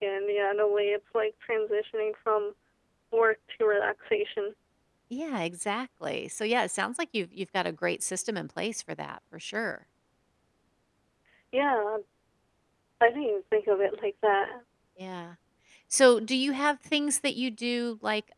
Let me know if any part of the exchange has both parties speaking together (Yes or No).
No